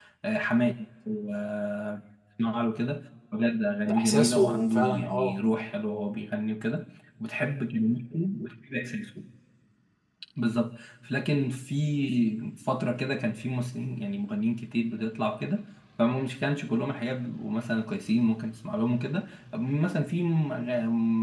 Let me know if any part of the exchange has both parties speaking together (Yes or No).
Yes